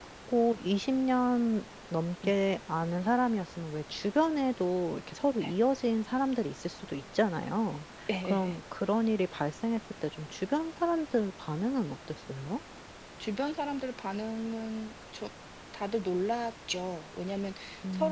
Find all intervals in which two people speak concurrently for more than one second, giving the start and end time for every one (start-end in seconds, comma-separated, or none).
none